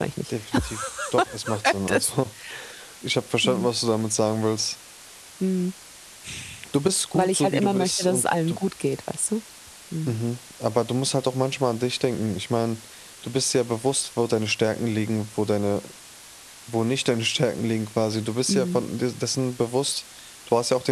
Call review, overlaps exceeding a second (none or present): present